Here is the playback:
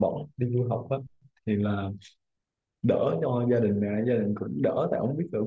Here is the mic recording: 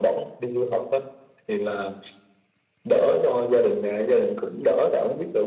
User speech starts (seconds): none

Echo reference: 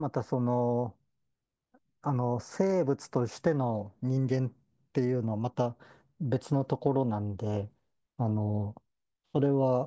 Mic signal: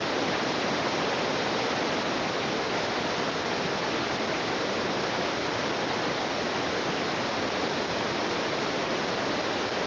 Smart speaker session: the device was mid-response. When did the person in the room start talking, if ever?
none

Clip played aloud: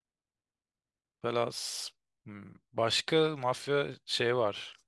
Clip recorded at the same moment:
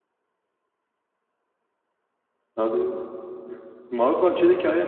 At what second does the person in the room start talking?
2.5 s

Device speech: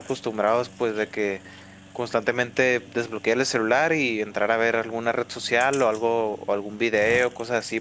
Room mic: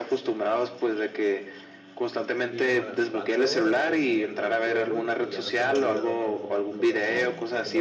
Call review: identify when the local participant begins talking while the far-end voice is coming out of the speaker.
2.5 s

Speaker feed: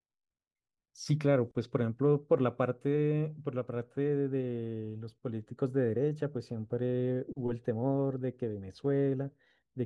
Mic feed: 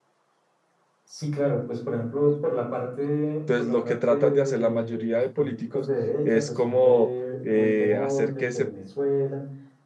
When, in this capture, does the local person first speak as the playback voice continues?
3.4 s

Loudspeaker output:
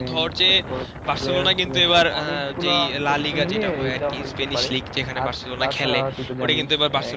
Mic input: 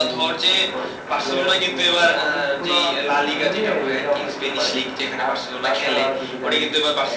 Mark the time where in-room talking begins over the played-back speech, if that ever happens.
none

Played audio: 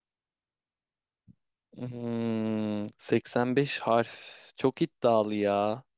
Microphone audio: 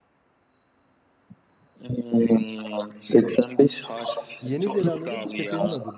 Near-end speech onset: 4.4 s

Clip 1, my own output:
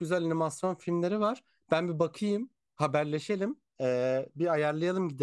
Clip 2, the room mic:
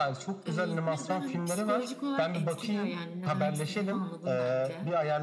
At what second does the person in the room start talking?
0.4 s

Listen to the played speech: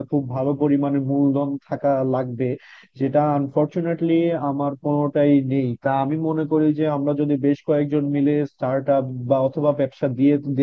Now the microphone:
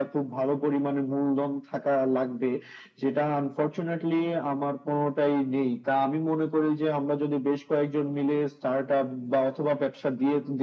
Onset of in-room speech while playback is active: none

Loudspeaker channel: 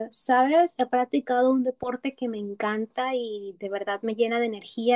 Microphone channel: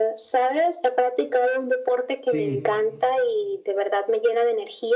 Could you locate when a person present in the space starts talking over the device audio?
2.2 s

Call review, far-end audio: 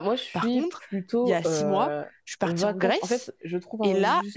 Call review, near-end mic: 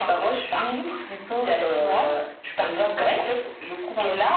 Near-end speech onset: none

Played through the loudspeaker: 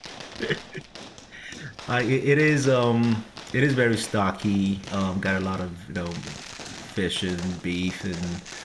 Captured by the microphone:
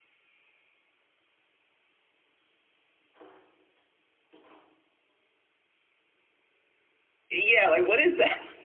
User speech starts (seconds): 7.3 s

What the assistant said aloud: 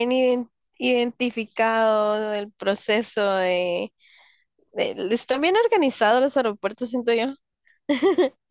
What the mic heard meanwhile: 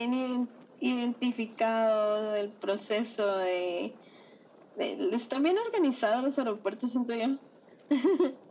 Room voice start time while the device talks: none

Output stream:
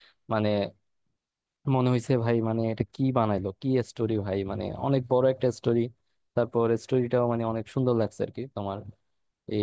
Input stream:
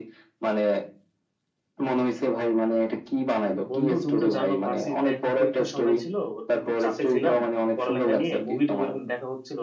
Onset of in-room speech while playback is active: 3.5 s

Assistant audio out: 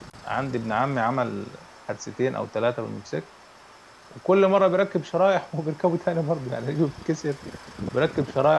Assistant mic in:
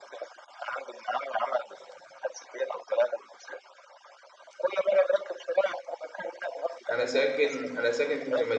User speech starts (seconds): 6.9 s

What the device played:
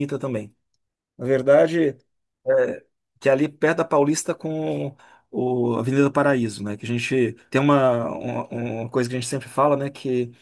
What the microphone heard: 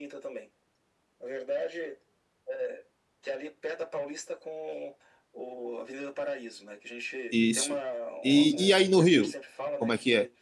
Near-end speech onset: 7.3 s

